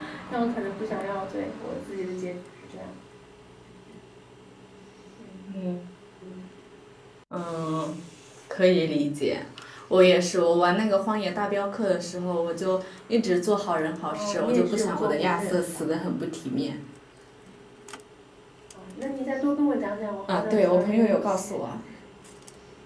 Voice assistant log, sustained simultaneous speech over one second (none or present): present